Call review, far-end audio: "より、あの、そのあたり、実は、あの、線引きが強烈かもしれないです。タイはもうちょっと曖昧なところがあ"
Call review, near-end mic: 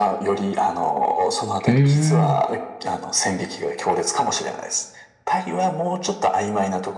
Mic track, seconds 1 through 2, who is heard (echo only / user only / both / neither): both